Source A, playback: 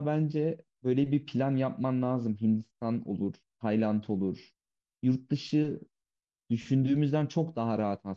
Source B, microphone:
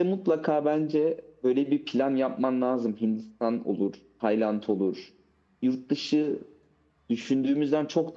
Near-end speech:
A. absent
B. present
A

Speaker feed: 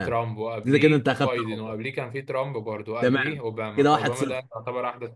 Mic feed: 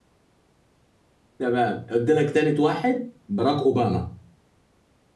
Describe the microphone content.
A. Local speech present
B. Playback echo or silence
A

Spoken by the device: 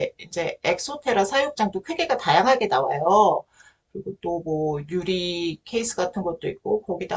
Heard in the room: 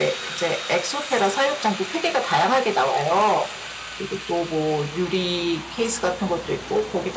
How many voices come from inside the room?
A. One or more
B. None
B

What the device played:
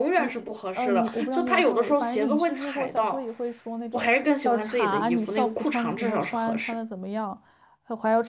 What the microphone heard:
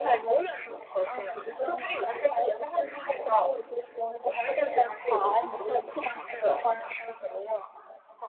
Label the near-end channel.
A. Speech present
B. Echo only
B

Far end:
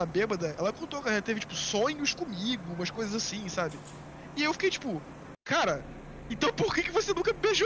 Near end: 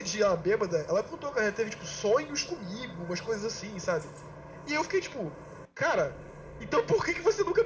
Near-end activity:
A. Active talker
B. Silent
B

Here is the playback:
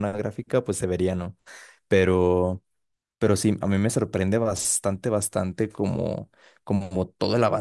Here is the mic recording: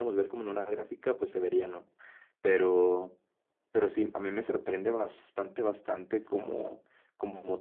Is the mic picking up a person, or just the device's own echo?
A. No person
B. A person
A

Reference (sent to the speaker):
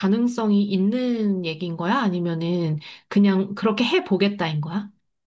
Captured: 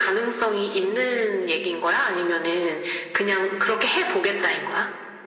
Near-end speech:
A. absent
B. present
A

